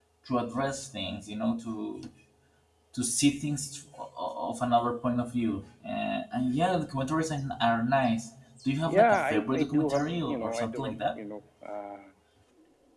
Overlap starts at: 8.9 s

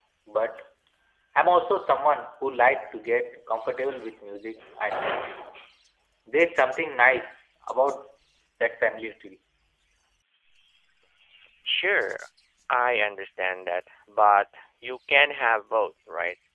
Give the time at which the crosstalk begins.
none

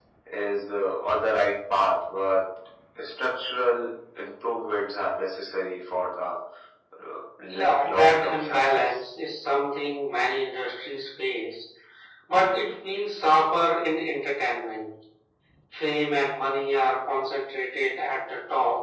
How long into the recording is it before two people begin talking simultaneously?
7.5 s

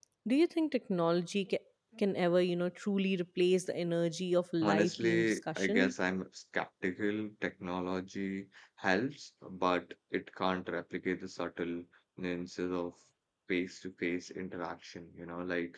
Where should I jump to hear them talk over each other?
4.6 s

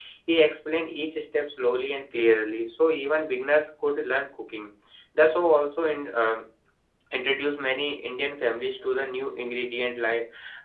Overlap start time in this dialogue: none

